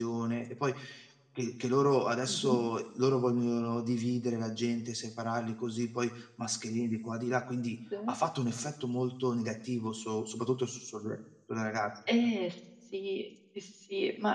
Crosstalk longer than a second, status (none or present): none